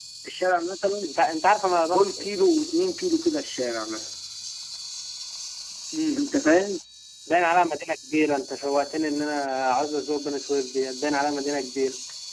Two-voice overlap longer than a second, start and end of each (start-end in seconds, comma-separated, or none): none